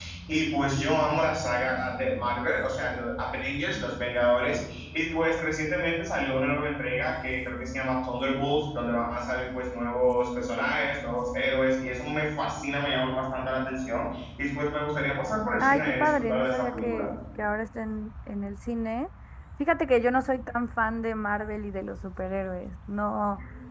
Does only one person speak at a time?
No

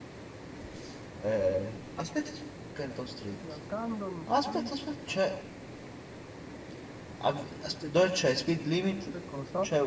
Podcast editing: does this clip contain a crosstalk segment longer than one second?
No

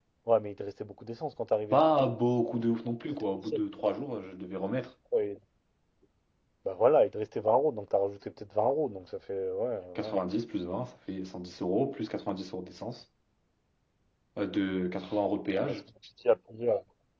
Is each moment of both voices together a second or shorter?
Yes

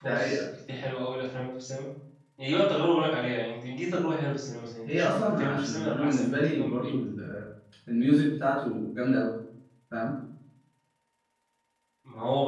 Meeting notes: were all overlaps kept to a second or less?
No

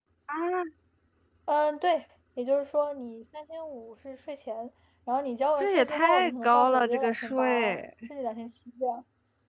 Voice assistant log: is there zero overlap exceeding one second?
No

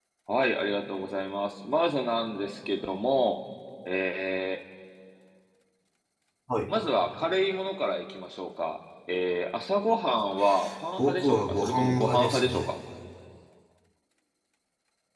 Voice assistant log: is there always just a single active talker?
No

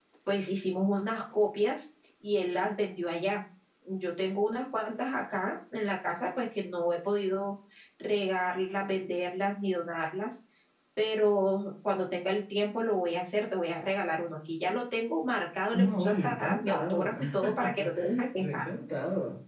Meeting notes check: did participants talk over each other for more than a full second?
Yes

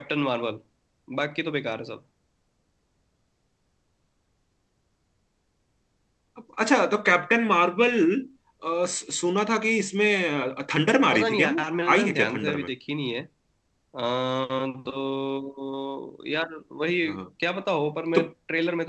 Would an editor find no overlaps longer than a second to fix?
No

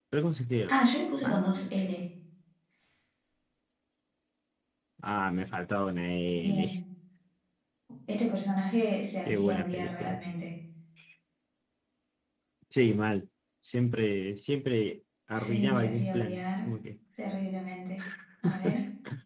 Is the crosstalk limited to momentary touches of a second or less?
No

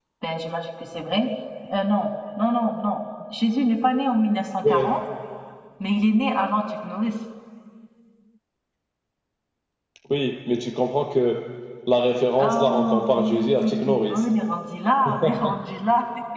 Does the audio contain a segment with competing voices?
Yes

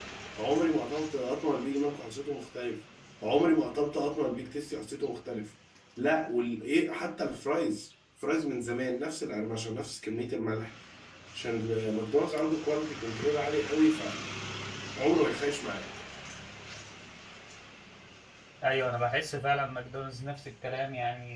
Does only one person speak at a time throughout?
Yes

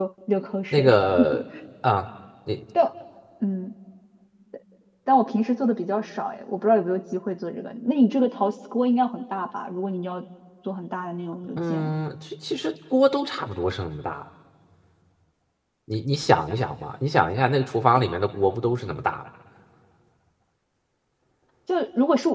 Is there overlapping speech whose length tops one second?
No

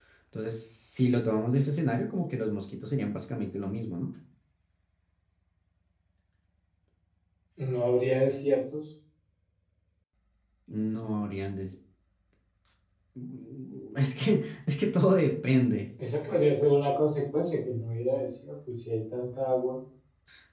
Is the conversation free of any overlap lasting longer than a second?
Yes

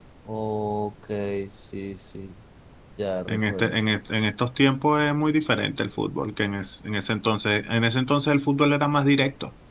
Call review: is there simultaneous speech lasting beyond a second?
No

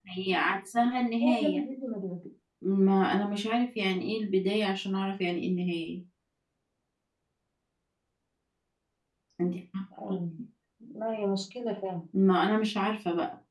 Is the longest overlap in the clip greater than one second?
No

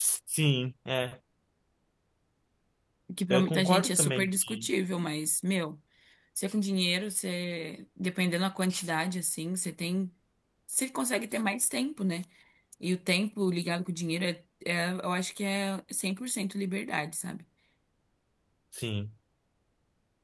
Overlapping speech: Yes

